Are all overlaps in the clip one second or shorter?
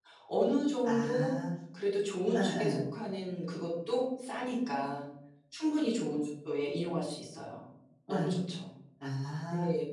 Yes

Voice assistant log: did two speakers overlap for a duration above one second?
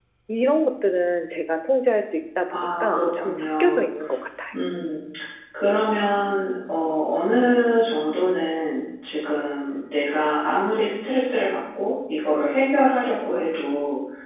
Yes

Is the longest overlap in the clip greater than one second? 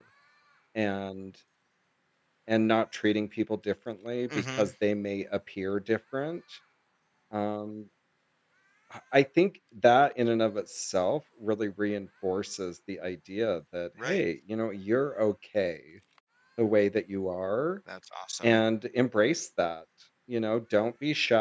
No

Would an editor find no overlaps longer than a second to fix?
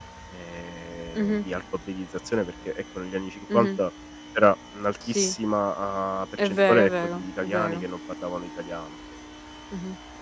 No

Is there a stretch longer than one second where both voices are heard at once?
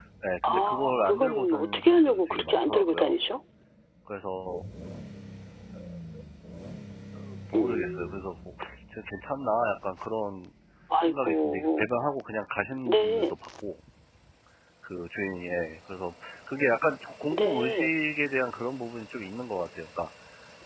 Yes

